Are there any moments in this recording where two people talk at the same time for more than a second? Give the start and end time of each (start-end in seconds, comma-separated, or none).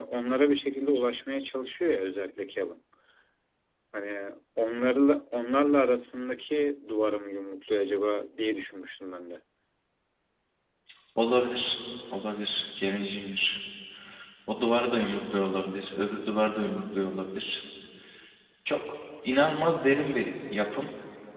none